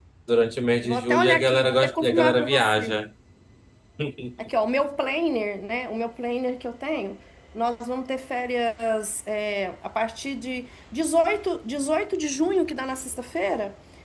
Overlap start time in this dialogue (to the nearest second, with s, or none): 1 s